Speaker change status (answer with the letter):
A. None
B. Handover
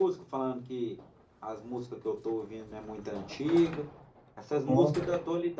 A